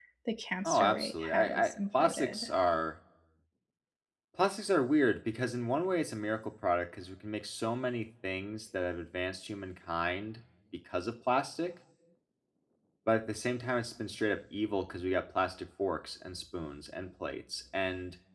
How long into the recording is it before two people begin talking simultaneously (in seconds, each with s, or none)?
0.6 s